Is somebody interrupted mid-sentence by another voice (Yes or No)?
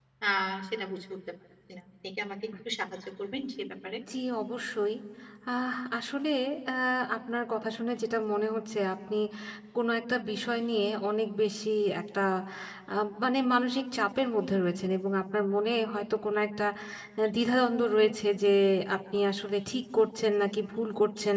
No